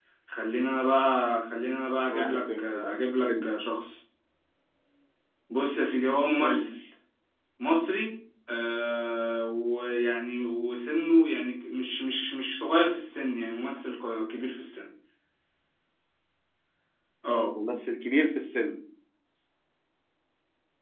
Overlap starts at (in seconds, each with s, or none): 2.1 s